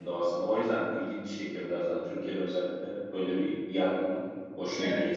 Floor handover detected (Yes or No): Yes